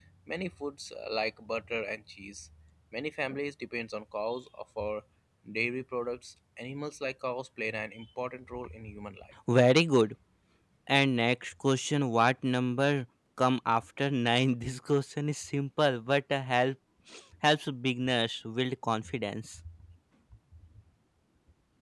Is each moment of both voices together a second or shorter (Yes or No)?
Yes